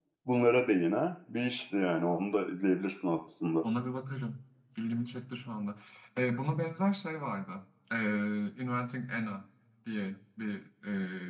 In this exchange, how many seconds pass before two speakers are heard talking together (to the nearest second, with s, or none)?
none